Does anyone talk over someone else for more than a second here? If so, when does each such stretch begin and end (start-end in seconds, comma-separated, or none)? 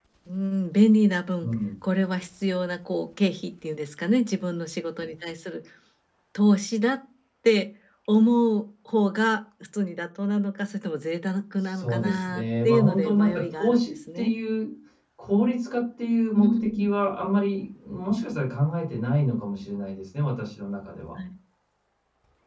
11.7-14.3